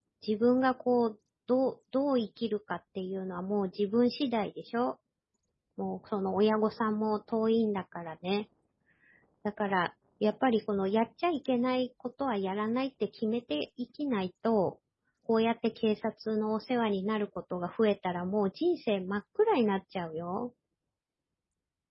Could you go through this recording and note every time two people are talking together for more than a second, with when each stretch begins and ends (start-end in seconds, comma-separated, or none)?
none